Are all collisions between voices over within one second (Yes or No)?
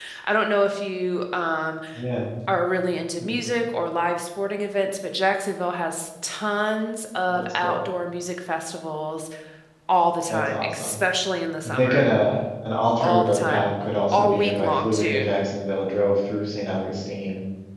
No